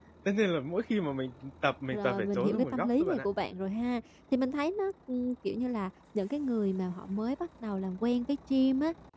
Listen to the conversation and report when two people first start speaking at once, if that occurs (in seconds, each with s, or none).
1.9 s